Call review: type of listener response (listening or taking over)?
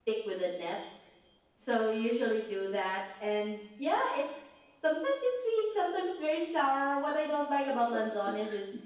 listening